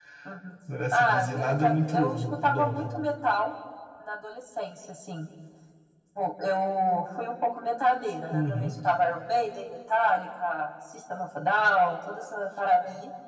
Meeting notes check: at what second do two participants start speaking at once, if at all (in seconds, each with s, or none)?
0.9 s